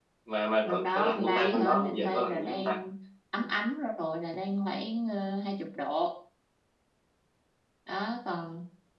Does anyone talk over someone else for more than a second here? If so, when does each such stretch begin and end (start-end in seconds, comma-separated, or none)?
0.6-2.8